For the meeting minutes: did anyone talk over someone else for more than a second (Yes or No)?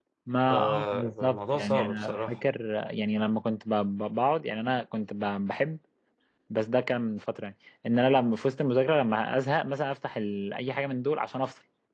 Yes